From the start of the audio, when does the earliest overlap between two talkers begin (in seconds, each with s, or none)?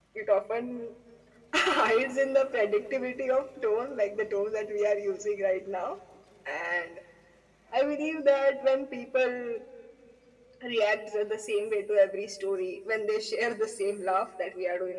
none